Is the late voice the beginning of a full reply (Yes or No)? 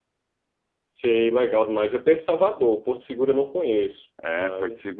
Yes